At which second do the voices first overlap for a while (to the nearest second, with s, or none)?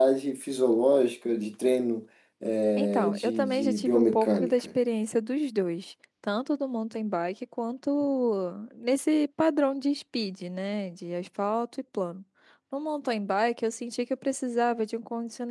3 s